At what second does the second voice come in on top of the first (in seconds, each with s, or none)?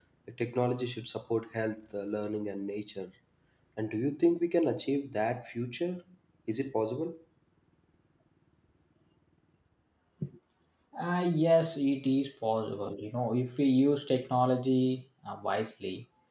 none